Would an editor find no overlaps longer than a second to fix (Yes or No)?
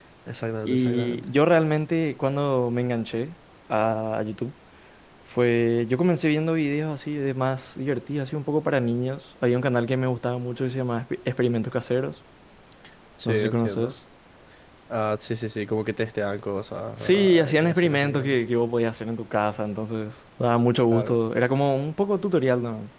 No